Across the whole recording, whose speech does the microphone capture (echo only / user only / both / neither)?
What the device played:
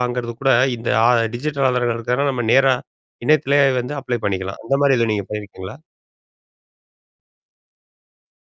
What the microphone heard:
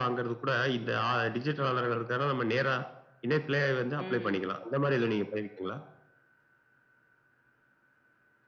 both